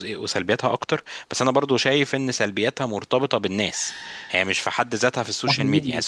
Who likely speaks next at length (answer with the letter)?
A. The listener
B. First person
B